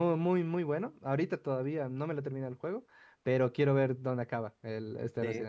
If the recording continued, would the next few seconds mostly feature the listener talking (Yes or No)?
Yes